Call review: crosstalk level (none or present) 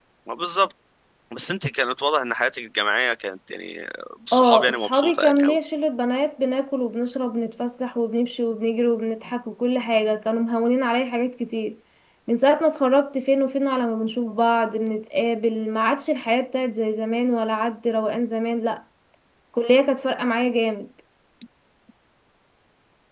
present